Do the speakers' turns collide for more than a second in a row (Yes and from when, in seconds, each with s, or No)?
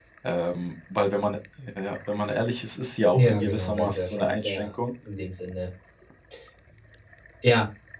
Yes, from 3.1 s